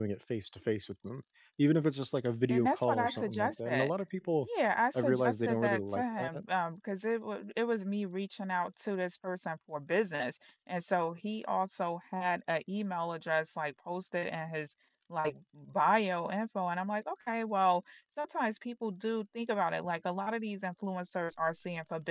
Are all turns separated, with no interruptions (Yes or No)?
No